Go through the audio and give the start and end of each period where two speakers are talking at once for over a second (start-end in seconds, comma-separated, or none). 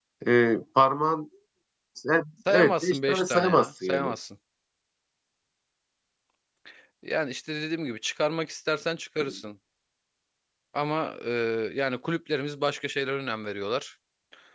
2.5-4.1